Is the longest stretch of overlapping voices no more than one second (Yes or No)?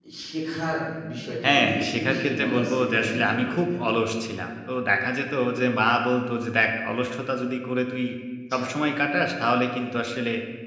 No